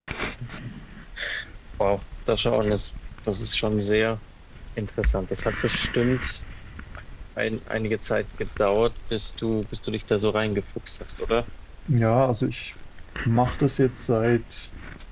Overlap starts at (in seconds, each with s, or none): none